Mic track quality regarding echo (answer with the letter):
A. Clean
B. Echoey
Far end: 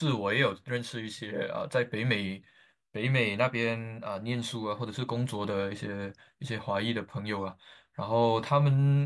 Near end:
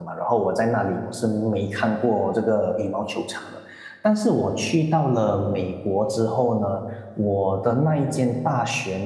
A